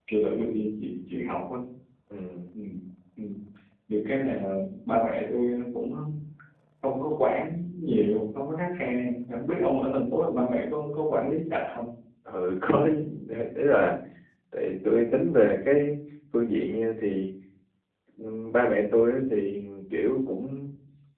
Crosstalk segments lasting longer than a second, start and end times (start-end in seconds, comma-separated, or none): none